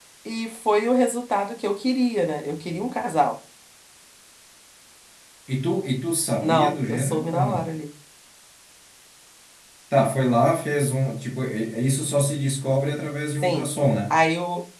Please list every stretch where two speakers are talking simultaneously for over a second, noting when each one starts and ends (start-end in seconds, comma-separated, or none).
6.4-7.7